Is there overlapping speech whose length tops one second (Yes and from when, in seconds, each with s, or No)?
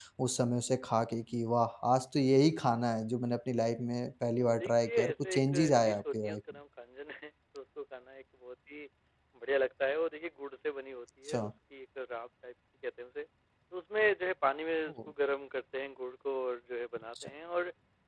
Yes, from 4.4 s